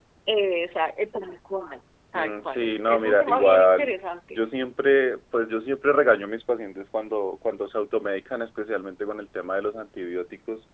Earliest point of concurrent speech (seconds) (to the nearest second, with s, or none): 2 s